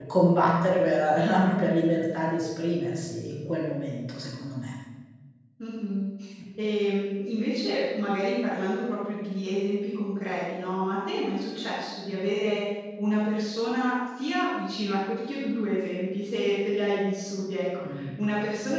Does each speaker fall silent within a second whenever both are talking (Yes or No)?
Yes